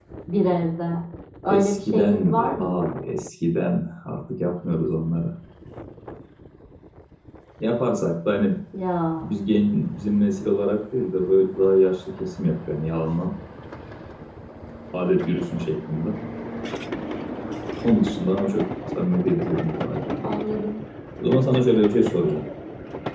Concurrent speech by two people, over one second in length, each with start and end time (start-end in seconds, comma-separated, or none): 1.5-2.8